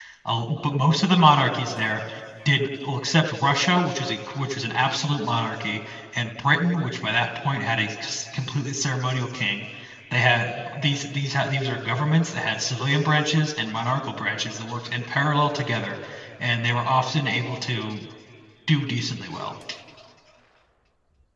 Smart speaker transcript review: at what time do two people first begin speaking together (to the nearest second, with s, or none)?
none